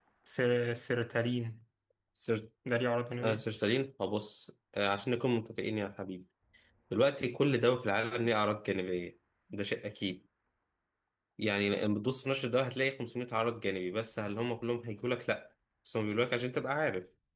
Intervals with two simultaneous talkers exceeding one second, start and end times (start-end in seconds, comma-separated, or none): none